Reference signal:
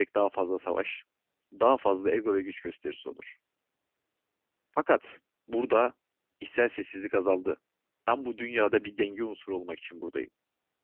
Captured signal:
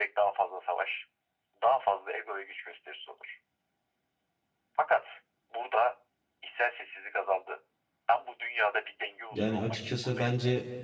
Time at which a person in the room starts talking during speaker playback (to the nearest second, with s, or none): 9 s